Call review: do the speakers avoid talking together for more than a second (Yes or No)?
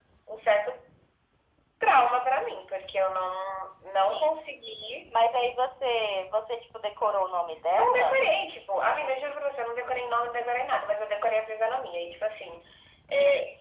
Yes